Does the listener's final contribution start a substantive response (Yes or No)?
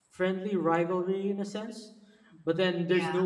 No